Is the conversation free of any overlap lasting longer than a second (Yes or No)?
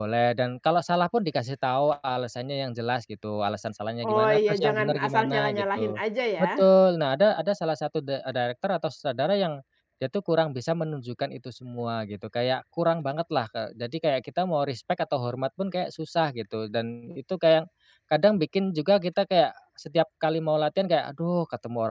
No